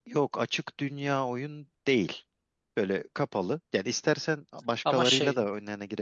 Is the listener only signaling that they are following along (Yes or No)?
Yes